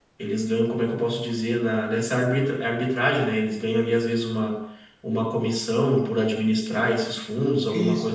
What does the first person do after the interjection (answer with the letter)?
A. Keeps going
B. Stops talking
B